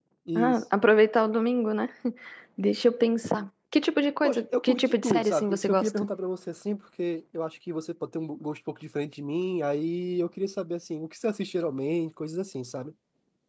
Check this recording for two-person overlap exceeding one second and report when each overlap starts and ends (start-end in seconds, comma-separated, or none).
4.2-6.0